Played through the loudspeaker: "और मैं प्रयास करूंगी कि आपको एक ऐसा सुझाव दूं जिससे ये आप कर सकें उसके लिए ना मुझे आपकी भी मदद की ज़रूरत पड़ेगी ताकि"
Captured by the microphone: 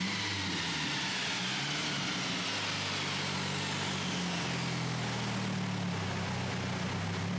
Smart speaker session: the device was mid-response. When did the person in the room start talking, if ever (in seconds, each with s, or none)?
none